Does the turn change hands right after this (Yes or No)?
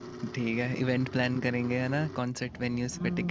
Yes